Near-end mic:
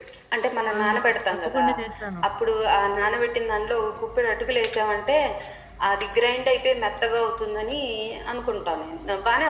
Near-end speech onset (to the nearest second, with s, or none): 1 s